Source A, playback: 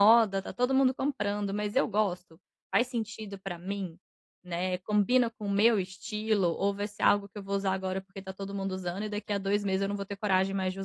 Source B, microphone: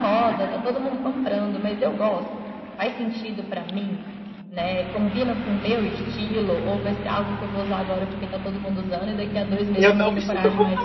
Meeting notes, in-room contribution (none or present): present